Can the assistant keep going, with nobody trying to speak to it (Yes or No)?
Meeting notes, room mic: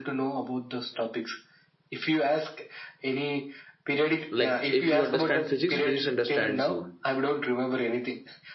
No